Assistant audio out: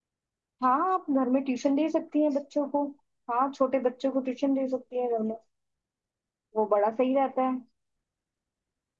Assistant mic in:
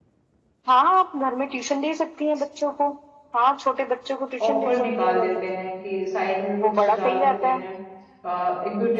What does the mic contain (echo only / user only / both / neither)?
both